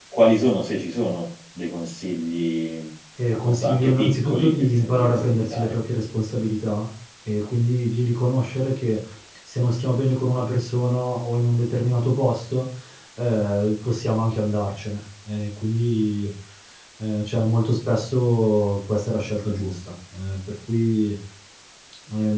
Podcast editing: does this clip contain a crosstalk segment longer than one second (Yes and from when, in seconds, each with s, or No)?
Yes, from 3.5 s